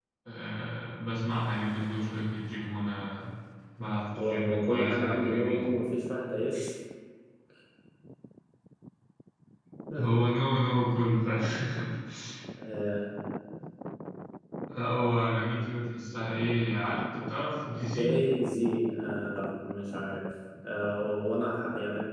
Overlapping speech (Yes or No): Yes